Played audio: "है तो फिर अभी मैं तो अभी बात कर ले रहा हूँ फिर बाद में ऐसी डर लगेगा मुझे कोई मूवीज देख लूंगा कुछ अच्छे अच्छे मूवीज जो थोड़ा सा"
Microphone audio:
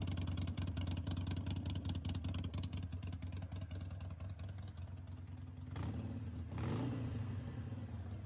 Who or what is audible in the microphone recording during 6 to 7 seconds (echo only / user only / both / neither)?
neither